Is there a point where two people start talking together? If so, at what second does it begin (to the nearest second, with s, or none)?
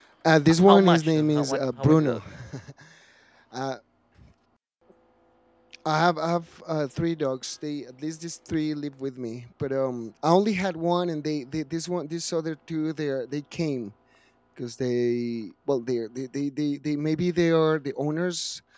1 s